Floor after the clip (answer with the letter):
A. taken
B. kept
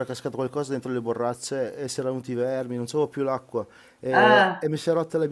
B